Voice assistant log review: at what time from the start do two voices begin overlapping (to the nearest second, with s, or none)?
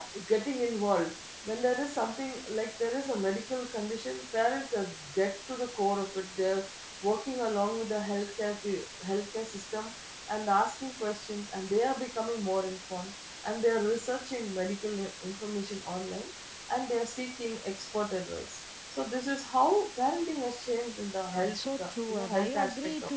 21 s